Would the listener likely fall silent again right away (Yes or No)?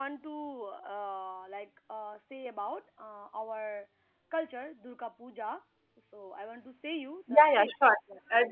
No